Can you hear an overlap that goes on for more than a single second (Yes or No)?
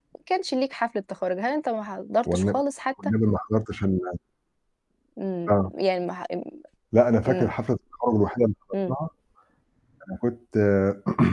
No